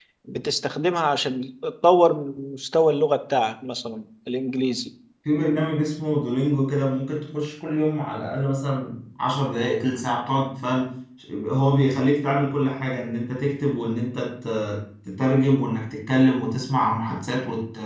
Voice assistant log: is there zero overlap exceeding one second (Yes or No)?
Yes